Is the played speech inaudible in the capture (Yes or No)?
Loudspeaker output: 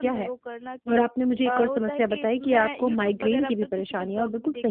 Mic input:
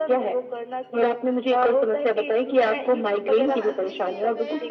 No